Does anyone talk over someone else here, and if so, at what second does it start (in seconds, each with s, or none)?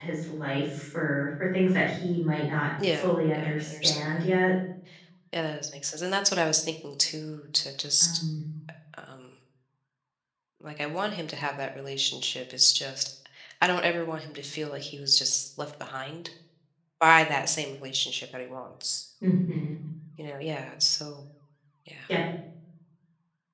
2.8 s